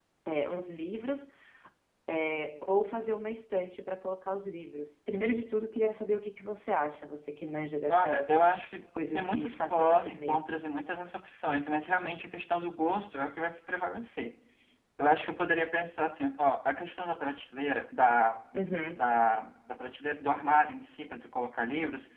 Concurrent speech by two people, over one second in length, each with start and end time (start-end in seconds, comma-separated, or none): 9.2-10.7